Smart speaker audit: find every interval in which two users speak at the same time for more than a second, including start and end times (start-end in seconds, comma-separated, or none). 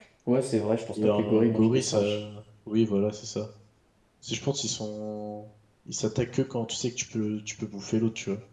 1.0-2.2